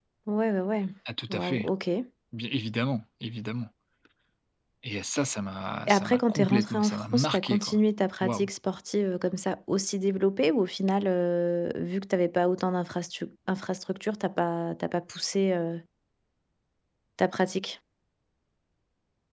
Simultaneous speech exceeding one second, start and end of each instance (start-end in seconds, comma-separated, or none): 5.9-7.8